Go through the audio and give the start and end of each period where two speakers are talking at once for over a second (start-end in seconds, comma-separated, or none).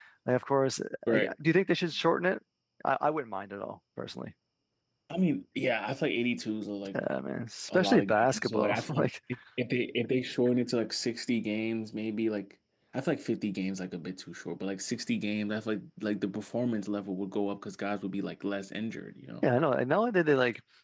7.7-9.1